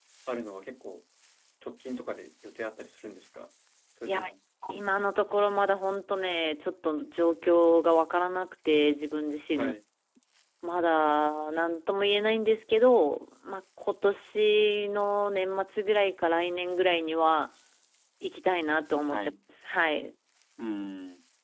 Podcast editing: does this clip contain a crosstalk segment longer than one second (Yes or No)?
No